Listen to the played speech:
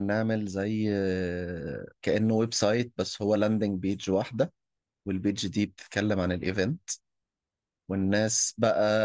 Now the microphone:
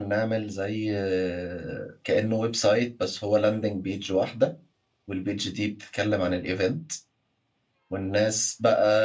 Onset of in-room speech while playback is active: none

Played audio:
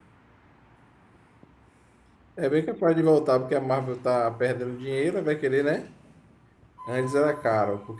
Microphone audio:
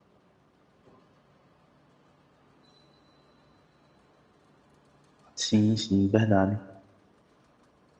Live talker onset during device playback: 5.3 s

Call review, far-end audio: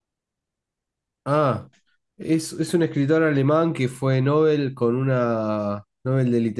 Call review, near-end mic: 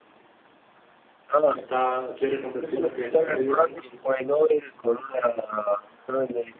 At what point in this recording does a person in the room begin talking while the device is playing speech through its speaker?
1.5 s

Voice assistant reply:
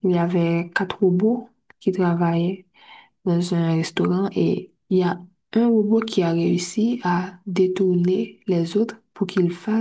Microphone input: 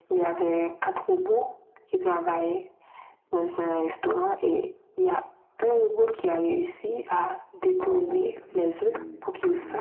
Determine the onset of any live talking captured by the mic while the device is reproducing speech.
7.8 s

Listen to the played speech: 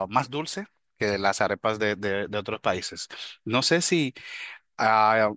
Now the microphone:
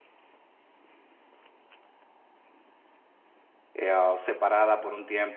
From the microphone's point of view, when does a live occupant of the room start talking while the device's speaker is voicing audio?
3.7 s

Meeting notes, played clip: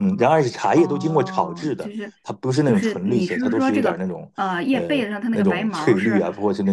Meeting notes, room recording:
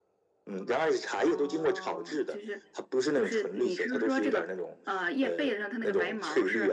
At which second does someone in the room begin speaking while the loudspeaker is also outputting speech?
none

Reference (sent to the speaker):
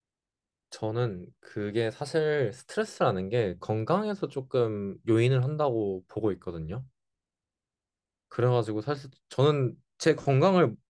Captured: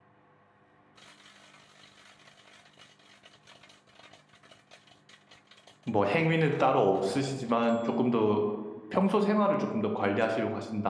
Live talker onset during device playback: 5.8 s

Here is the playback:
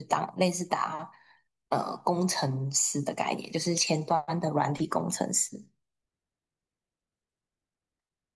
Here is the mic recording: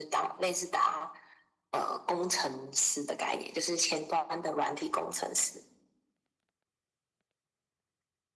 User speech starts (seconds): none

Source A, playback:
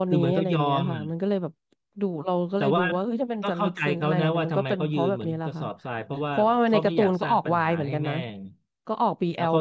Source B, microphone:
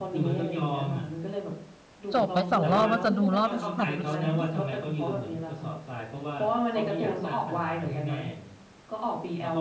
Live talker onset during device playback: 2.1 s

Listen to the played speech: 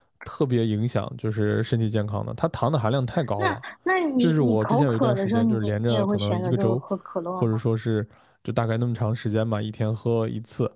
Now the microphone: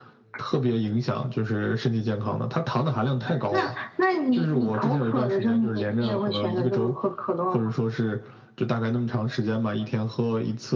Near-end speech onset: none

